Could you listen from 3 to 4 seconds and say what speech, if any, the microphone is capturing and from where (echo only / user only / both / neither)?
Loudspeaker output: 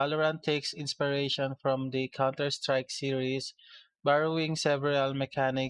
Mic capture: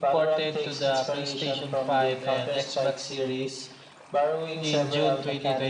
both